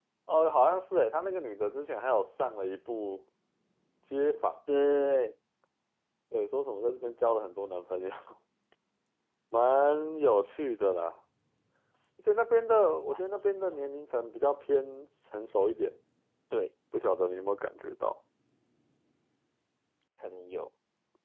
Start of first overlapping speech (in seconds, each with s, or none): none